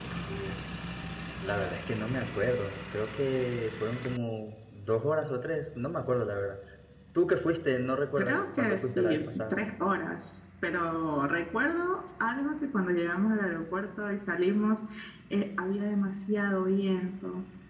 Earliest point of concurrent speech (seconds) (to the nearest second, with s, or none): 8 s